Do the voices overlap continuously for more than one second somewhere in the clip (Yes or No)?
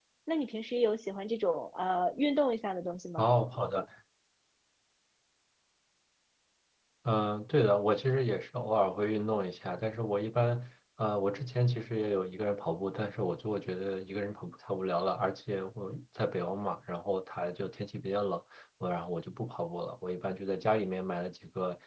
No